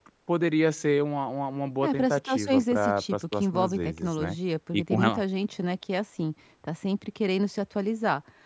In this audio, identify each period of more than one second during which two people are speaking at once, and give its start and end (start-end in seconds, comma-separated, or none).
1.8-4.4